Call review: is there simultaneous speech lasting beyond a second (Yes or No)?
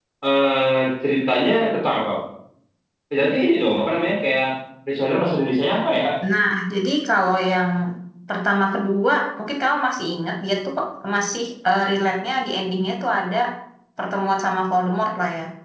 No